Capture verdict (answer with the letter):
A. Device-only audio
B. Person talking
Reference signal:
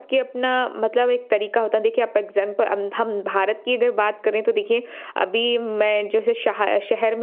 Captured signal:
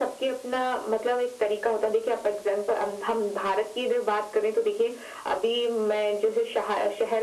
A